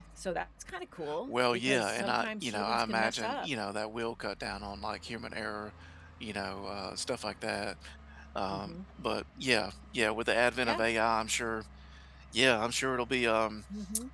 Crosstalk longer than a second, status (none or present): present